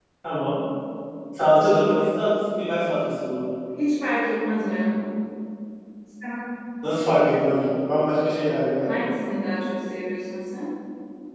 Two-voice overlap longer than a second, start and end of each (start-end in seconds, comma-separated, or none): none